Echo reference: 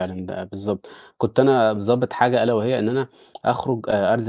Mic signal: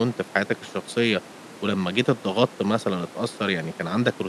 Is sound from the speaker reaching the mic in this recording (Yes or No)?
No